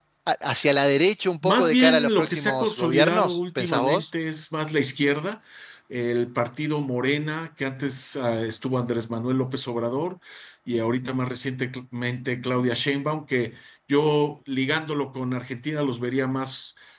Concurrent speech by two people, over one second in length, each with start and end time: 1.4-4.0

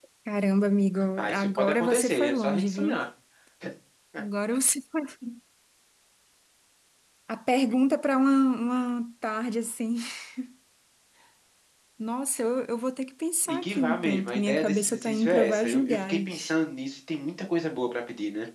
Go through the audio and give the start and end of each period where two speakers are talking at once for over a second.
1.2-3.0, 13.5-16.5

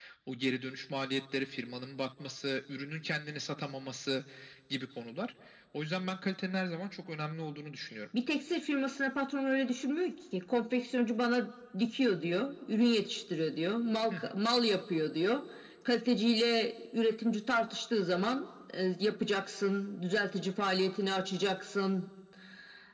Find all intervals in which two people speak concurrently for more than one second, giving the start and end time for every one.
none

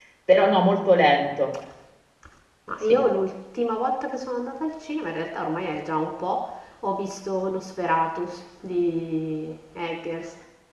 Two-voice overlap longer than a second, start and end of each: none

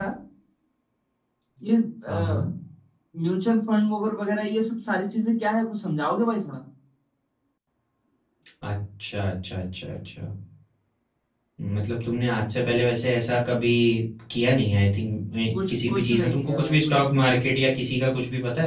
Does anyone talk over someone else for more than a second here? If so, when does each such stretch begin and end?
15.7-17.3

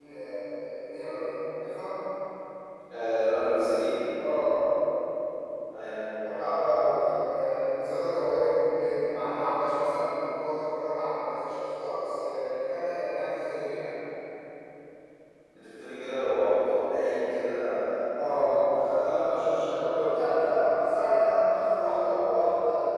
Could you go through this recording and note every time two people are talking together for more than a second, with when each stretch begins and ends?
none

